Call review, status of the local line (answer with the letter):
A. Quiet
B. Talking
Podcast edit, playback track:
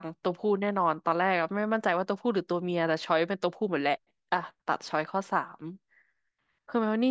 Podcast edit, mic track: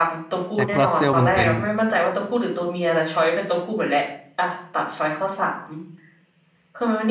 B